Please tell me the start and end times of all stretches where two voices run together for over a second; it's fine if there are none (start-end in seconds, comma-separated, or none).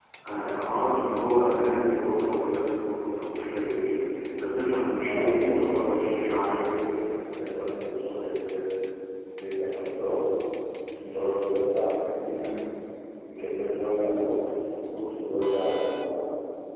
5.0-6.7